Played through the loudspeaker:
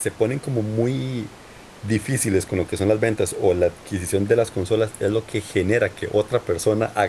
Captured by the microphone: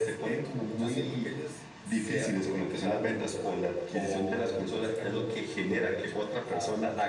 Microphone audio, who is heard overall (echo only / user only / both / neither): both